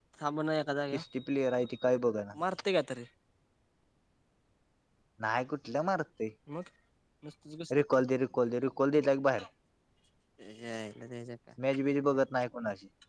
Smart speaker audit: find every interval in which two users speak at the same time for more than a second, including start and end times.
none

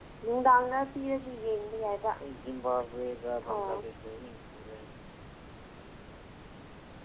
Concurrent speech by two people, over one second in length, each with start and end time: none

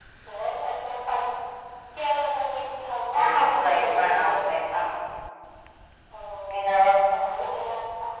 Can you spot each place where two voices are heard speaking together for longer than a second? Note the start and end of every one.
3.1-4.5

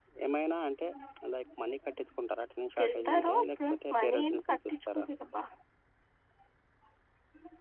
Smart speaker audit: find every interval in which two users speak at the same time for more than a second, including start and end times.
2.8-5.0

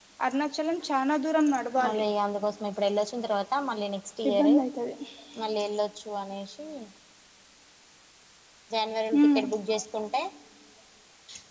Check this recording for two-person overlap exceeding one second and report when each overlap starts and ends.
none

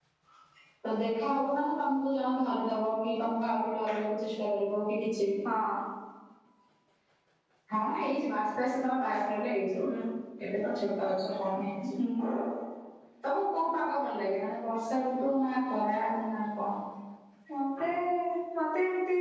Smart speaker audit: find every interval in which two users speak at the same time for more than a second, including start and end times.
none

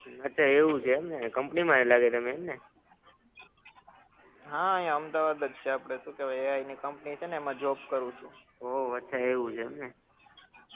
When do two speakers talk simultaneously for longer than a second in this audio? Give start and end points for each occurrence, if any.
none

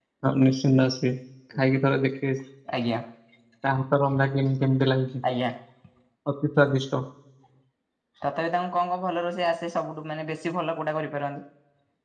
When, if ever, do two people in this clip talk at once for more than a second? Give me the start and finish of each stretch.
none

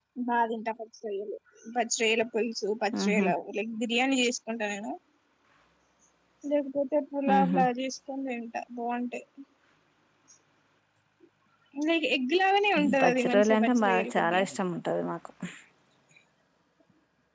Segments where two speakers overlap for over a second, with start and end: 13.0-14.4

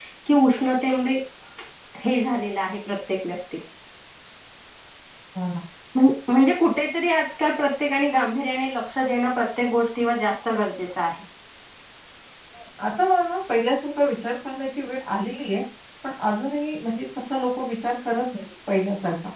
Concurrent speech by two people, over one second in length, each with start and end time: none

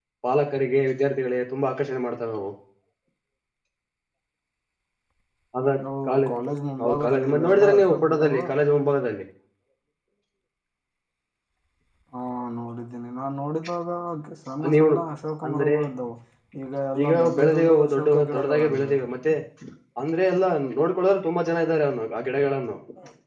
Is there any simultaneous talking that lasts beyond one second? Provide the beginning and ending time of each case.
6.8-8.3, 17.0-19.0

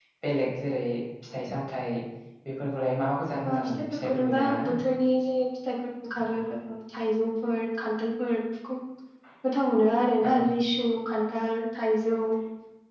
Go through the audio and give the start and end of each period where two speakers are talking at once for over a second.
3.5-4.7

